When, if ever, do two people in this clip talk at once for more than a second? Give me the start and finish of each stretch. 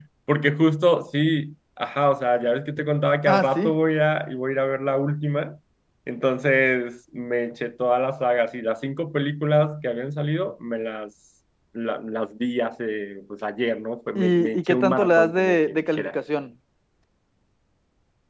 14.2-16.1

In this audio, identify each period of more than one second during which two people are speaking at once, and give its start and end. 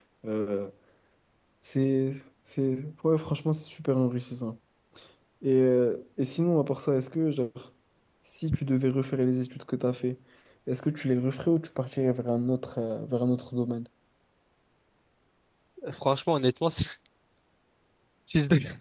none

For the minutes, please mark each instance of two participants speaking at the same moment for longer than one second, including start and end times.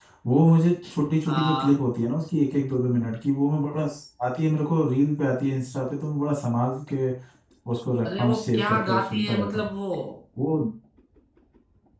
8.1-9.7

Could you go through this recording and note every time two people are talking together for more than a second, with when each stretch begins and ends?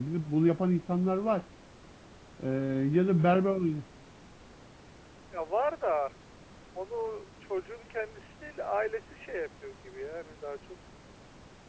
none

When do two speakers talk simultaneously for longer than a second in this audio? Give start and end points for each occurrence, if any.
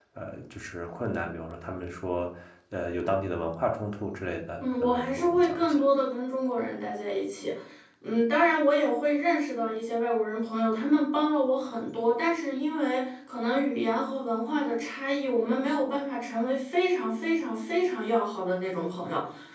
4.6-5.8

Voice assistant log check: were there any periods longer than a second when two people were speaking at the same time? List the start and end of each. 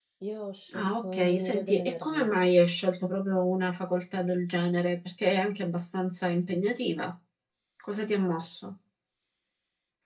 0.7-2.3

